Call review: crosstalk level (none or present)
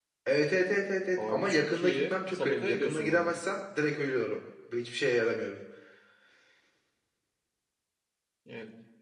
present